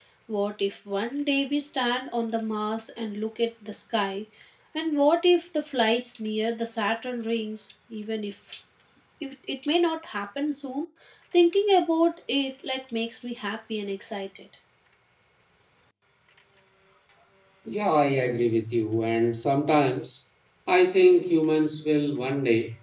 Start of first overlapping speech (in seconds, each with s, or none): none